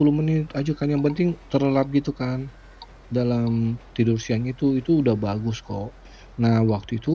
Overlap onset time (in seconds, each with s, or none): none